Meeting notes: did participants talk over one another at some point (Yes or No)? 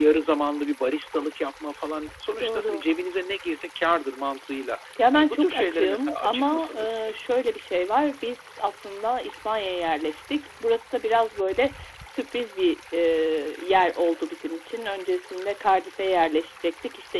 Yes